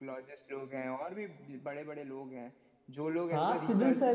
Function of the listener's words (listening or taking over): taking over